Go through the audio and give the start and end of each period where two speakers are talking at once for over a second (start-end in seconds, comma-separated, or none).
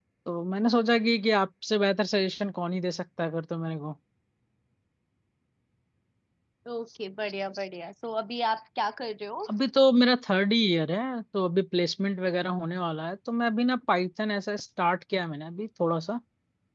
none